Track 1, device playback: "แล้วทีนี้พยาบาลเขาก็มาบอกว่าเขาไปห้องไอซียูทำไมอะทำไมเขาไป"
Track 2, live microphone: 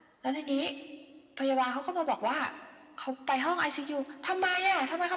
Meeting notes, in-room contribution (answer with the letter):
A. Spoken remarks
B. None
B